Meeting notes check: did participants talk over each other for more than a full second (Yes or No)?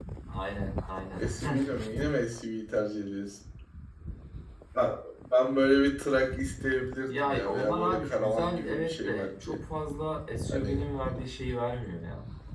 Yes